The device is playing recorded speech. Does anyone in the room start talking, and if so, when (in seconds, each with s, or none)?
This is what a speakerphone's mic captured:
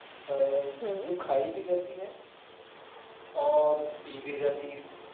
0.8 s